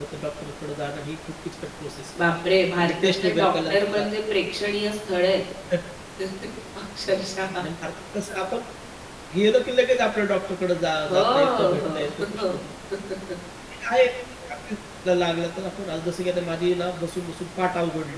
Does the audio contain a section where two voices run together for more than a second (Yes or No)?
Yes